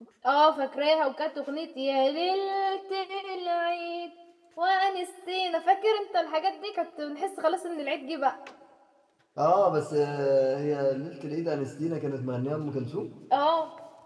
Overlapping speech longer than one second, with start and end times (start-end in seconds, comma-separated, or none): none